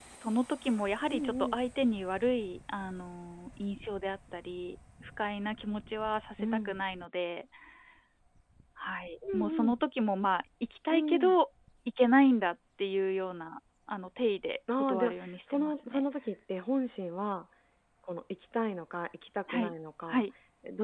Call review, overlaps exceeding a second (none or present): present